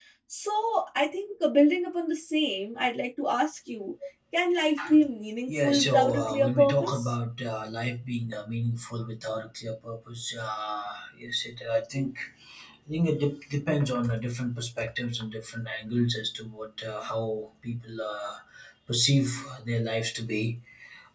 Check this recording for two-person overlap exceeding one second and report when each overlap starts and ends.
5.5-7.1

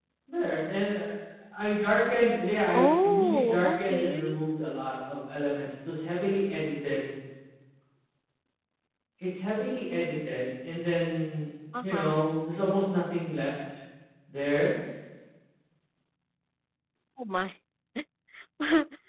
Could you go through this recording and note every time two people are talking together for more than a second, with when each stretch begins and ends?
2.7-4.3

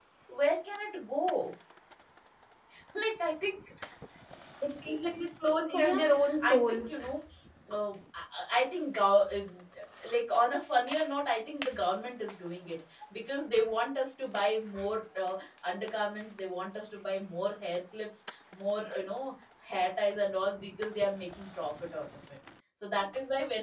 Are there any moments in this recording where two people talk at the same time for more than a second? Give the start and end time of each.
5.7-7.1

